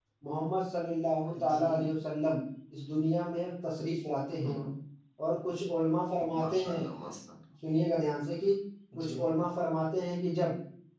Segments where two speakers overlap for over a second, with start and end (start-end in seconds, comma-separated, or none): none